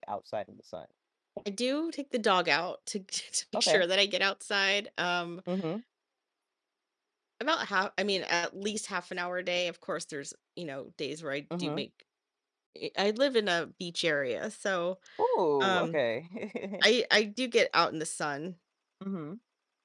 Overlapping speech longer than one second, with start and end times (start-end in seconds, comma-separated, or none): none